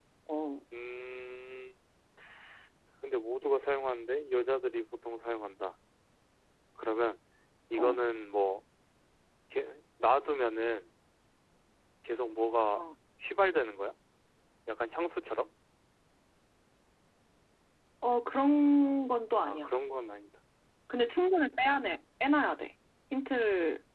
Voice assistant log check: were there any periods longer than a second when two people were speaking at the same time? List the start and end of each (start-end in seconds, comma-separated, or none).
none